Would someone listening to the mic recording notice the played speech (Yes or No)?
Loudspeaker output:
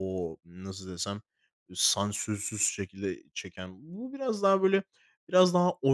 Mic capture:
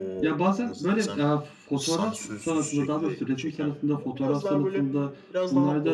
Yes